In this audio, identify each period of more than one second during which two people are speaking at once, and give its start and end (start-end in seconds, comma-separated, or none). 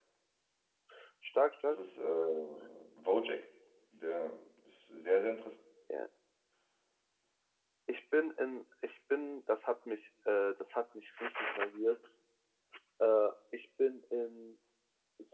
none